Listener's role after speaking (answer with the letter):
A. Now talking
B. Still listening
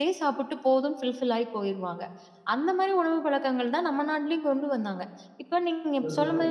B